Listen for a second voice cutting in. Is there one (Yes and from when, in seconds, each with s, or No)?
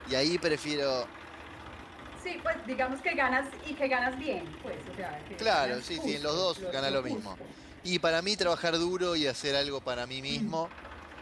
Yes, from 5.4 s